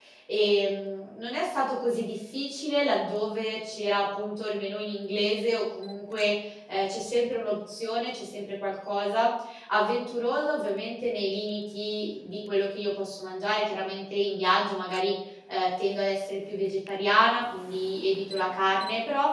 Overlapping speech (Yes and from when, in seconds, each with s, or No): No